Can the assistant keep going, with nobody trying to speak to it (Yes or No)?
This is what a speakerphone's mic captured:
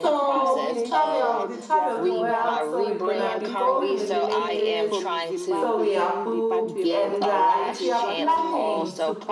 No